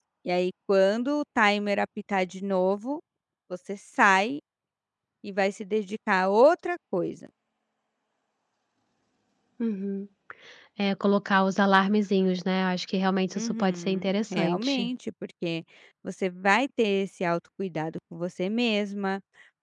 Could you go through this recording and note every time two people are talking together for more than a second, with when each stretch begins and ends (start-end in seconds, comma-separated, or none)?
13.3-14.9